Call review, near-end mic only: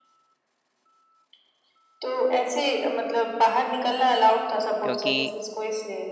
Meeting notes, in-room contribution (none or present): present